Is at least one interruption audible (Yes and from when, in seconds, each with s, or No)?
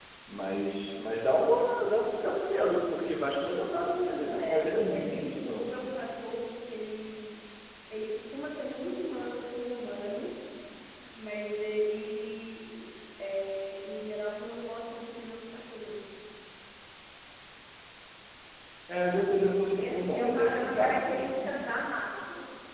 Yes, from 4.4 s